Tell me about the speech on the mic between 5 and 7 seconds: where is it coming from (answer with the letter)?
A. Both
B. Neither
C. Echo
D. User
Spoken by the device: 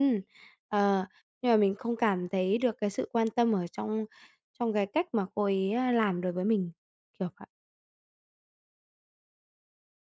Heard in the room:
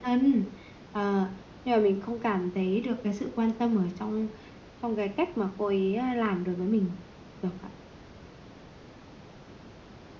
C